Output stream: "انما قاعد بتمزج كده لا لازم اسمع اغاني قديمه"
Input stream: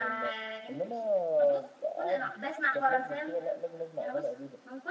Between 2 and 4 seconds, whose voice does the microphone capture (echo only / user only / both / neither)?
both